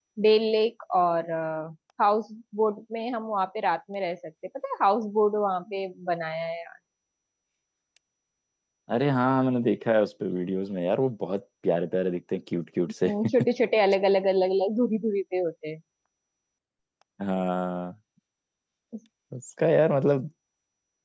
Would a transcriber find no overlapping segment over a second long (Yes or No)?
Yes